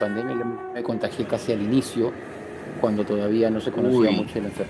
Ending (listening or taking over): listening